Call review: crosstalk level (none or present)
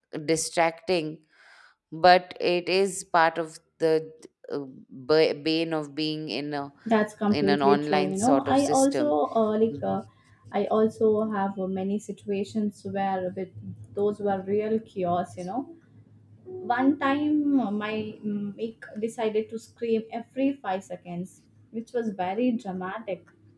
present